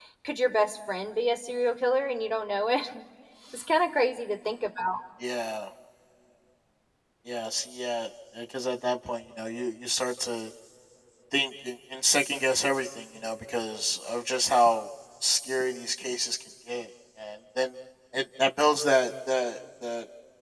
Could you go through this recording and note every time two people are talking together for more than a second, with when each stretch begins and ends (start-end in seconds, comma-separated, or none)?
none